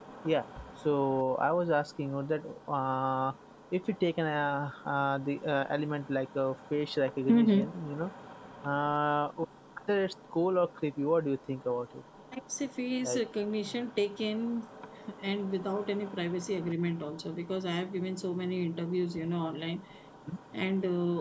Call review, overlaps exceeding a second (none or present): none